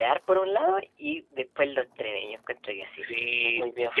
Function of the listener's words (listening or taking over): taking over